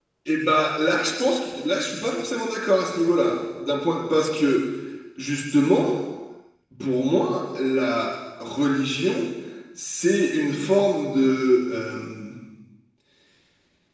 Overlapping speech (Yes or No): No